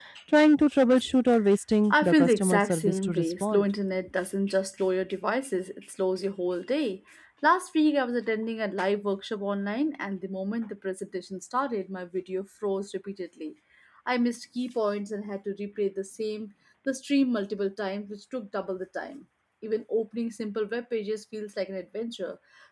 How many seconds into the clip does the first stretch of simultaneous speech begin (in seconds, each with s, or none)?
1.9 s